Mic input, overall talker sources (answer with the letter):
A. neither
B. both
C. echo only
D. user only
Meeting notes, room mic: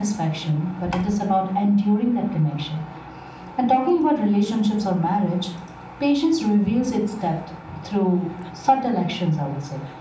C